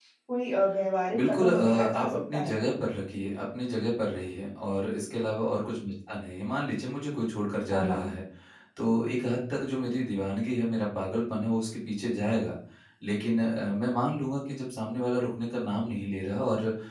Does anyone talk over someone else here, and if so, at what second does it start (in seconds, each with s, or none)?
1.2 s